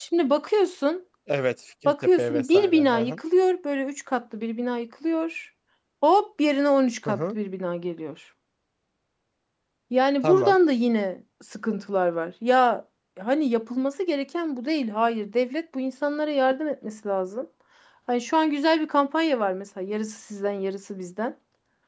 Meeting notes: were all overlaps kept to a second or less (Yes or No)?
No